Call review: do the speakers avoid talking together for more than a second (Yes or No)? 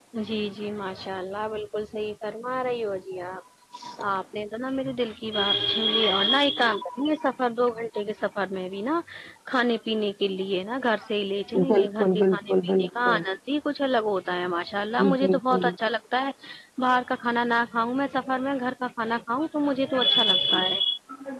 No